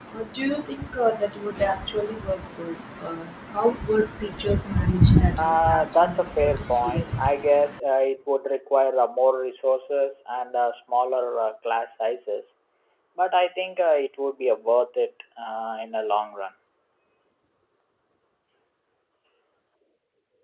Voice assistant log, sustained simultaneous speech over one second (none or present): present